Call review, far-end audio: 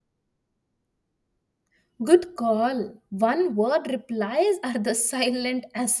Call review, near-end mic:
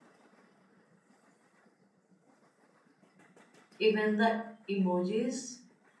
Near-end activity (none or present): present